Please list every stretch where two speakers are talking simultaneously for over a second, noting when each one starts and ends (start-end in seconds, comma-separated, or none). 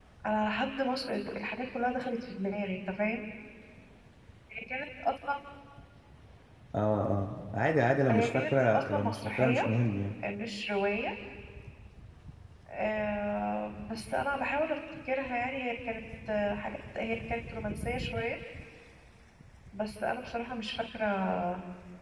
8.1-9.6